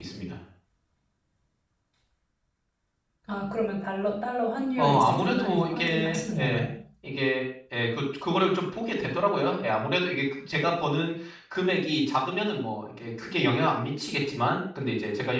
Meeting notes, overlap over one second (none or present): present